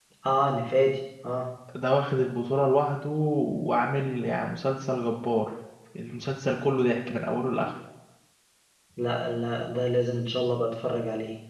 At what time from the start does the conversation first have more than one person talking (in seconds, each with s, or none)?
none